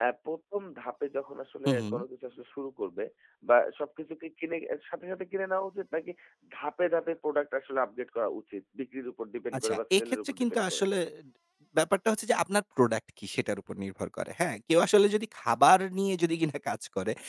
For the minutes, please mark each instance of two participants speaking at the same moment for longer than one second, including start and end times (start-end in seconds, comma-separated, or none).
9.6-10.8